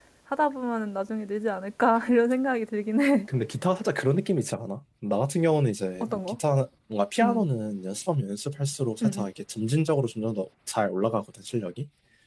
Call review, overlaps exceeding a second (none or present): none